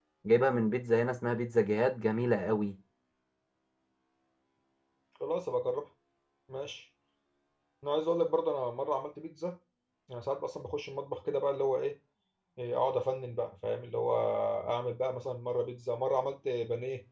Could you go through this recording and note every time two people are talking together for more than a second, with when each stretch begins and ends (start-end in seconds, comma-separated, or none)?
none